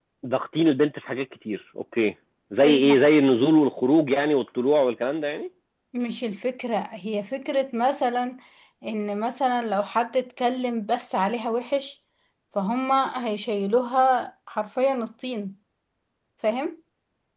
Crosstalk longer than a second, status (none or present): none